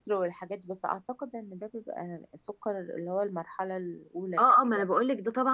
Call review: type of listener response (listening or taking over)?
taking over